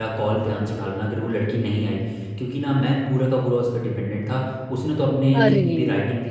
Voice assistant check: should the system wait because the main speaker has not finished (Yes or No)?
Yes